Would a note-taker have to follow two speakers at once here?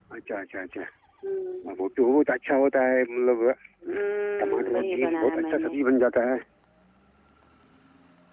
Yes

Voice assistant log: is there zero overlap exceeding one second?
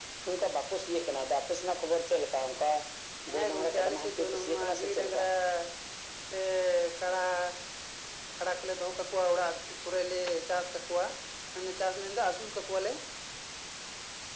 No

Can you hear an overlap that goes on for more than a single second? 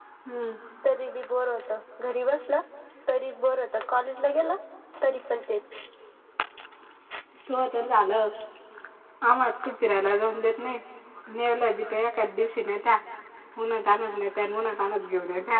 No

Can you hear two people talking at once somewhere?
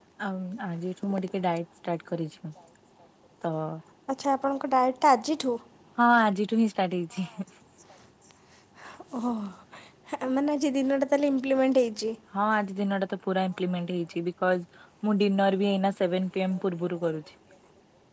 No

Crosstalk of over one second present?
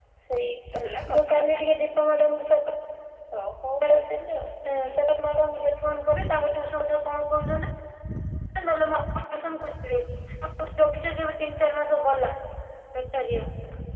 No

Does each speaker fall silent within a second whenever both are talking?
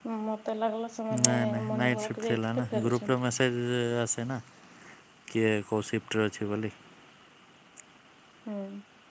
No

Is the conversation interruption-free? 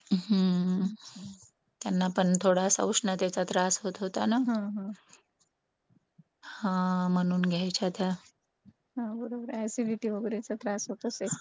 Yes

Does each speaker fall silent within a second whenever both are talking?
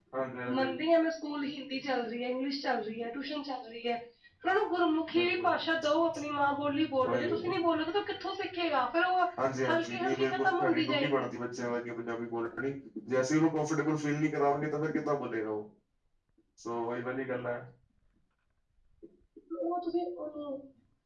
No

